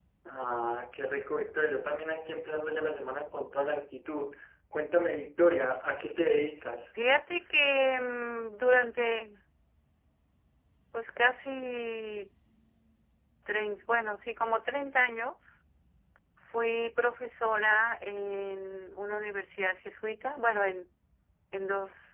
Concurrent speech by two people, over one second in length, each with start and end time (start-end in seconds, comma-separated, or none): none